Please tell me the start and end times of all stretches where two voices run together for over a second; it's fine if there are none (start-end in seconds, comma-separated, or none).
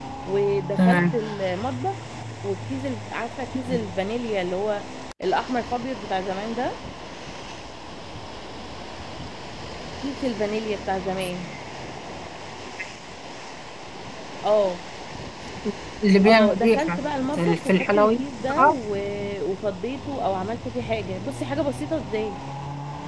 16.2-18.1